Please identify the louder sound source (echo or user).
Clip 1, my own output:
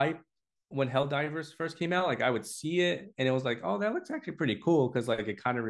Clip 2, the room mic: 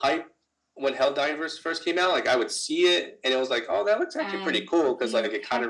echo